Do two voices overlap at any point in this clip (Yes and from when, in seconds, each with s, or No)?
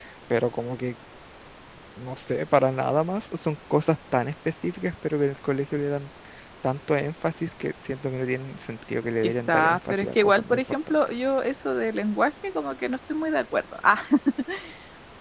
Yes, from 9.2 s